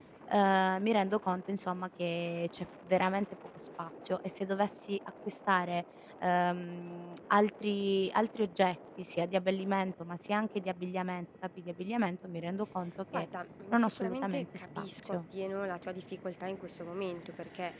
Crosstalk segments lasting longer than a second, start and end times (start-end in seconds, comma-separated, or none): 13.7-15.2